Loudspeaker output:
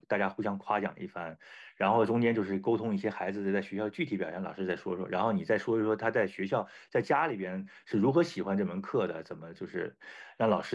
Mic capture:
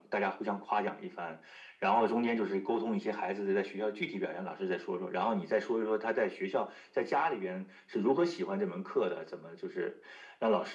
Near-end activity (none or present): none